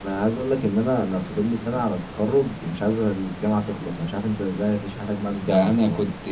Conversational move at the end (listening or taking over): taking over